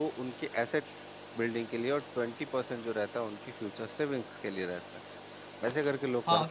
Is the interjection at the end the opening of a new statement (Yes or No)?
Yes